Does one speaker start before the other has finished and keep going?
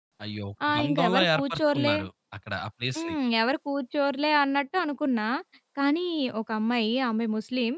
Yes, from 0.7 s

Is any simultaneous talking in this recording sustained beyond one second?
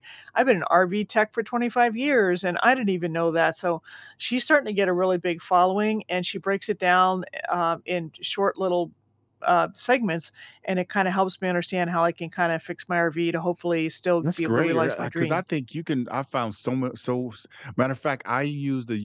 Yes, from 14.2 s

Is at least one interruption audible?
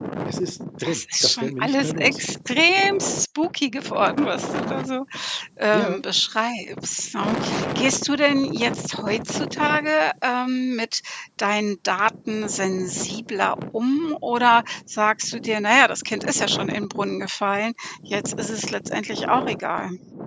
Yes, from 0.8 s

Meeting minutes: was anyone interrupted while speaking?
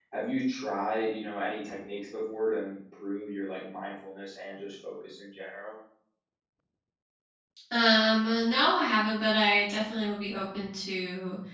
No

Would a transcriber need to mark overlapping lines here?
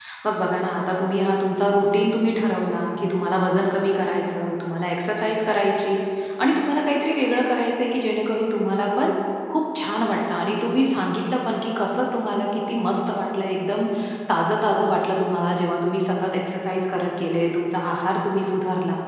No

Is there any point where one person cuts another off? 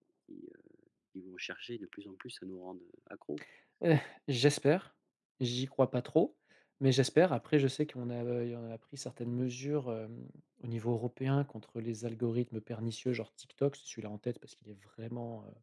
No

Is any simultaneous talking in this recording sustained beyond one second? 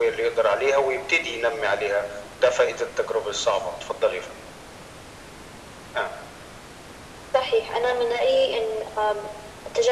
No

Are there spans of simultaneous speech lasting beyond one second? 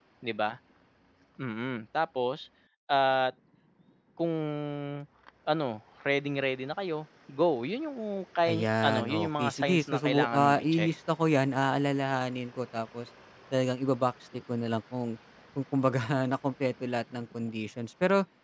Yes, from 8.5 s

